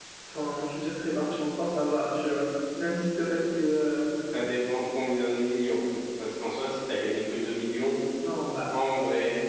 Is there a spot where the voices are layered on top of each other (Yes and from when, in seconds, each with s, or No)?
No